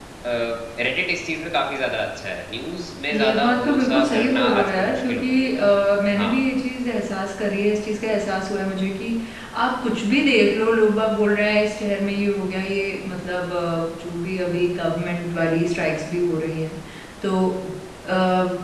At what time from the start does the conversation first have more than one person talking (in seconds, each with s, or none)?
3.1 s